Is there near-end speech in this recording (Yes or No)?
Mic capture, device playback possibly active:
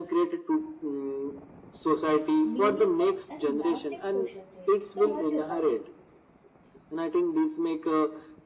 Yes